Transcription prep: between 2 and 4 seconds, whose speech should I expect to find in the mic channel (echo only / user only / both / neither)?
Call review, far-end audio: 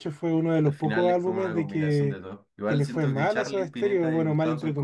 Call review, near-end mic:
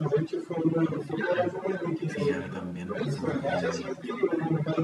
both